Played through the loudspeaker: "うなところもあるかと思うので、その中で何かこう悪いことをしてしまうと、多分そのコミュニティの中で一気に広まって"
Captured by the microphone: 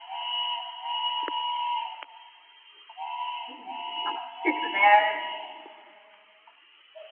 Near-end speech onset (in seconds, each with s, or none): 3.5 s